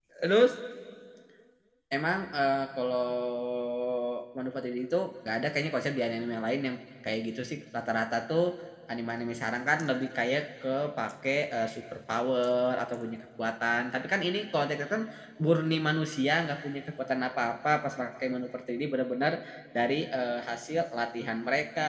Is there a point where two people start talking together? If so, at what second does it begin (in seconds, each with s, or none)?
none